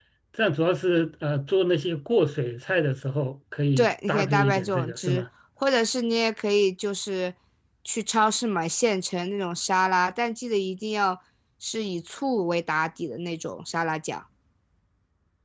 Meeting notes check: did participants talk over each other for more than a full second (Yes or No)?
Yes